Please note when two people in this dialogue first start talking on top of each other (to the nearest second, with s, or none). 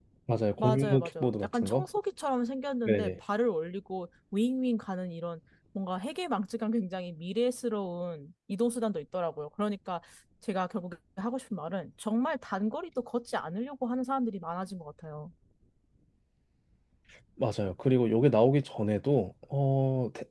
1 s